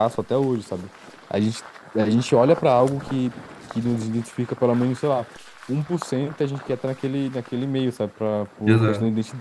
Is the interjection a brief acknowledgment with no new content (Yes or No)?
Yes